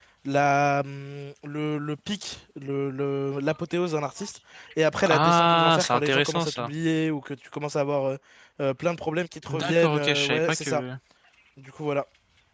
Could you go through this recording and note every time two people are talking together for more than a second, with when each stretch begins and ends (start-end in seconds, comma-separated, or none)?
5.0-6.7, 9.5-10.8